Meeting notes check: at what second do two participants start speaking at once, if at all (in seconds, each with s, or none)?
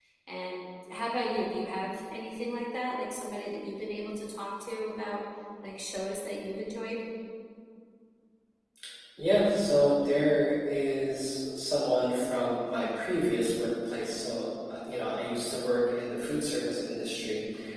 none